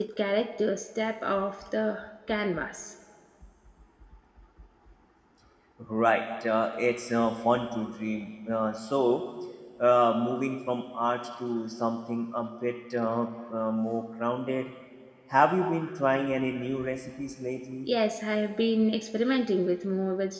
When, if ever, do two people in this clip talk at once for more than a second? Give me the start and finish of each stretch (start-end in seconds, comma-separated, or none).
none